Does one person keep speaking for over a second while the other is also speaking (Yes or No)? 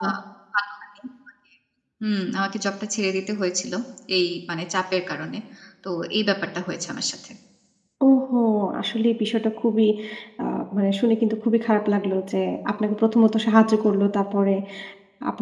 No